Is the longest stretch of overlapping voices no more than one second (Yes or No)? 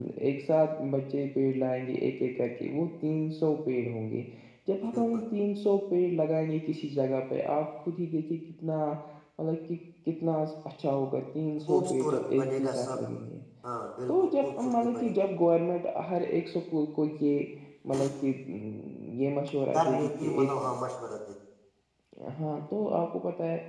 No